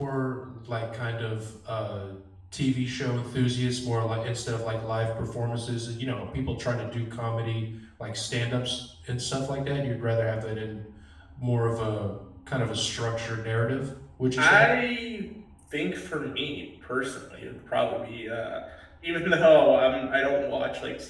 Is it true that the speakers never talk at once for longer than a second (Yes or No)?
Yes